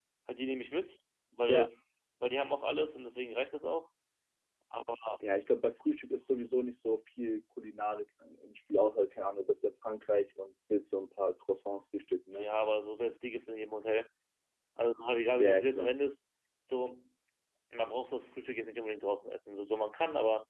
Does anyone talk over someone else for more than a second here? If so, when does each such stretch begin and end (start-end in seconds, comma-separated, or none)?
none